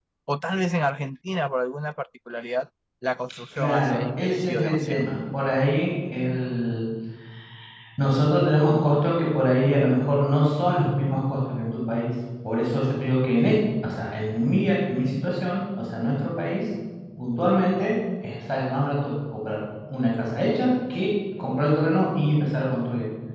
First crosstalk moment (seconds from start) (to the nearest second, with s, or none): 4 s